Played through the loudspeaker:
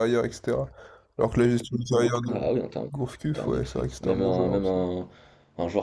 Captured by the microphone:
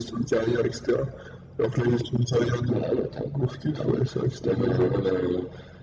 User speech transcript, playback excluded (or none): none